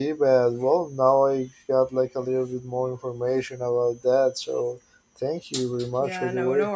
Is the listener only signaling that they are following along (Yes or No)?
No